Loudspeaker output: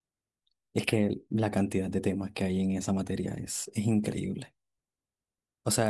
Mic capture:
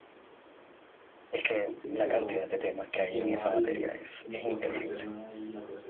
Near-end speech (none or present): present